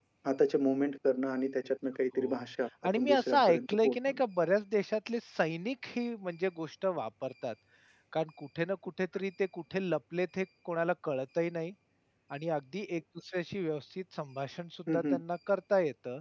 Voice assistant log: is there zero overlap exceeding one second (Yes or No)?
No